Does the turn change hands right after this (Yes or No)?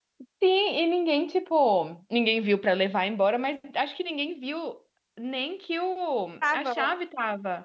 No